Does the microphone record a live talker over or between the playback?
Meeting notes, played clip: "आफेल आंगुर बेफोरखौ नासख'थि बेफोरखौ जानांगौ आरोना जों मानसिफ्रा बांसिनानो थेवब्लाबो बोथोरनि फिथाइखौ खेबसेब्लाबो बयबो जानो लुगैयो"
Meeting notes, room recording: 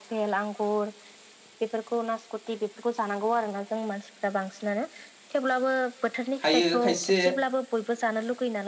Yes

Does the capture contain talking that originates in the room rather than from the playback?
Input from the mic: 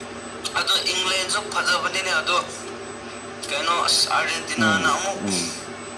Yes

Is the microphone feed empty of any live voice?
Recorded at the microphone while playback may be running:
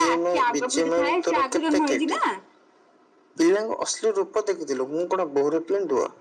Yes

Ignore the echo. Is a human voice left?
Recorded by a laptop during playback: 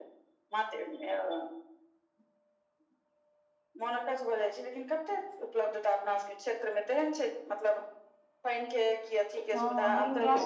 Yes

